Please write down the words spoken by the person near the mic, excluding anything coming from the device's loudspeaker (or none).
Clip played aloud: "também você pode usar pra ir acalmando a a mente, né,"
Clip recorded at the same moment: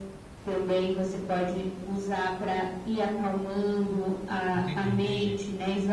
Entendi, entendi.